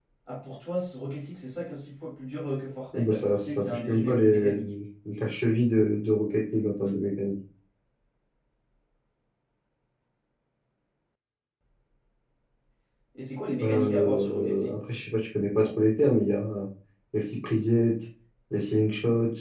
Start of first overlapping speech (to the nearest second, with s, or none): 3 s